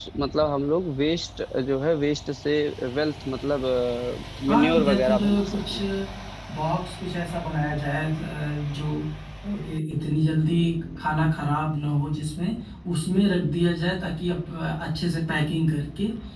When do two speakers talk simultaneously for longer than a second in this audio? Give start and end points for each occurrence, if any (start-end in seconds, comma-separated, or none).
4.5-5.8